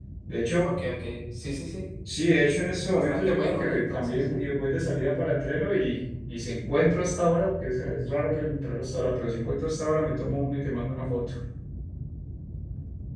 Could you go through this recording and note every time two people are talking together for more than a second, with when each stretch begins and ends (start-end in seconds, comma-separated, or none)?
2.9-4.2